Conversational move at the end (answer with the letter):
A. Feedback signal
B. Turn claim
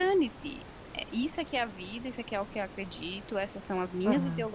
A